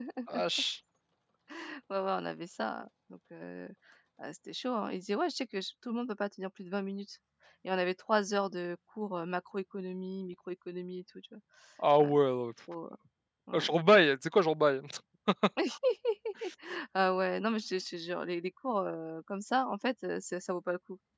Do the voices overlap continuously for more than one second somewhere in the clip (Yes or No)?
No